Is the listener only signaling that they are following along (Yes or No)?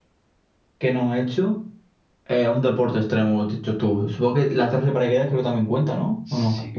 No